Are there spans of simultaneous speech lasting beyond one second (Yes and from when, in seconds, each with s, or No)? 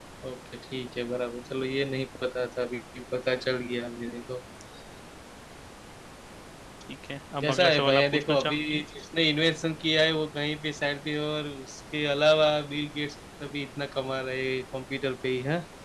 Yes, from 7.4 s